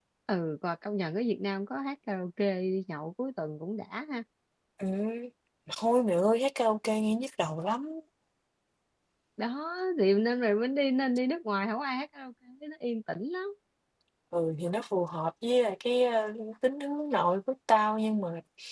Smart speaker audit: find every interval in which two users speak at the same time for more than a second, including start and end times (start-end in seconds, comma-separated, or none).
none